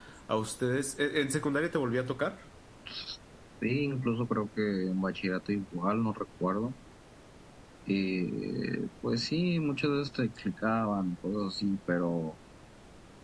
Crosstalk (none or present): none